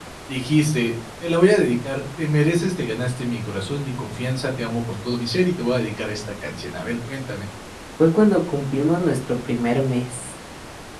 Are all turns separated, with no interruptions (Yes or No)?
Yes